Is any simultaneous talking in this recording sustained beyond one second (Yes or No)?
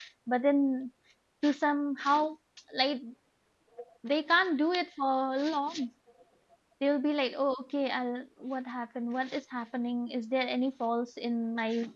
No